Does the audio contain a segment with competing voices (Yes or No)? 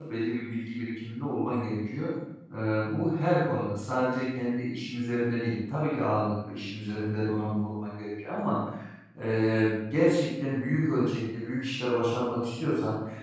No